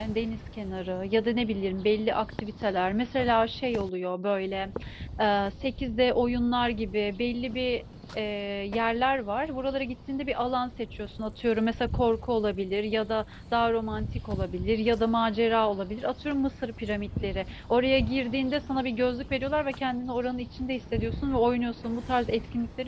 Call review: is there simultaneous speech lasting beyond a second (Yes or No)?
No